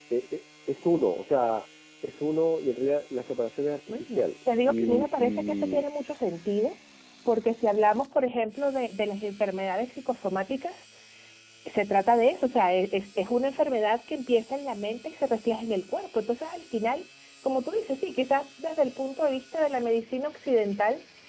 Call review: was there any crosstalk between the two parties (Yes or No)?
Yes